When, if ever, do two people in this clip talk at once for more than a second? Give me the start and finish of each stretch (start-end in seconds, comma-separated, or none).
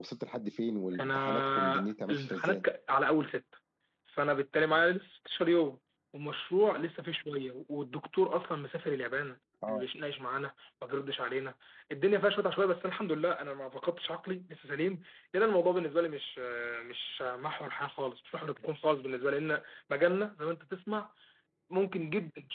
1.0-2.6